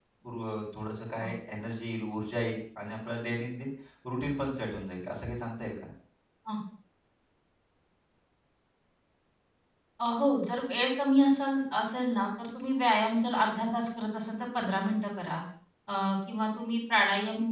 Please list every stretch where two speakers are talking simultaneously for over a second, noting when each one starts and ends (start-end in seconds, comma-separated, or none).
none